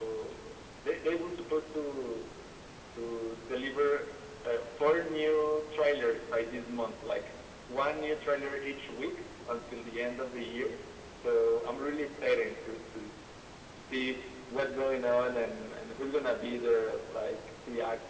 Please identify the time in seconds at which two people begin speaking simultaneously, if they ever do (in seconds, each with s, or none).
none